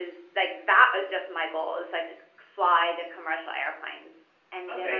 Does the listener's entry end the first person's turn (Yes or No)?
Yes